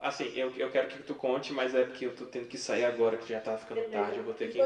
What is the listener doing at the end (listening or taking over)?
taking over